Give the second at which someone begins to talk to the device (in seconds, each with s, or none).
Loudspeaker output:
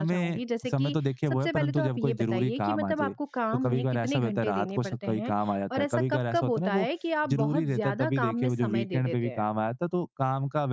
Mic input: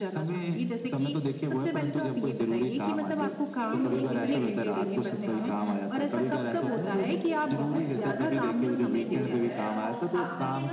3.6 s